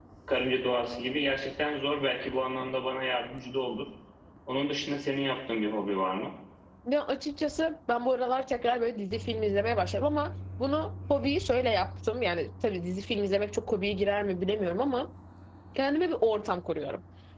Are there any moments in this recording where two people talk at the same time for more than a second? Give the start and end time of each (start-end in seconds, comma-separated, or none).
none